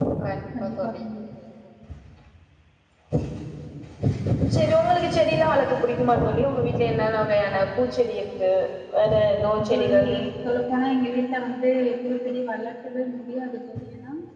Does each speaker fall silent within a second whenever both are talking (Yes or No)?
Yes